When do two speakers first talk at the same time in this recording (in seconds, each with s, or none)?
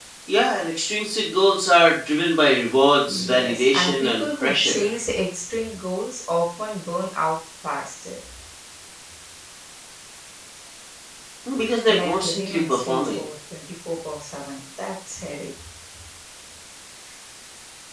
3.1 s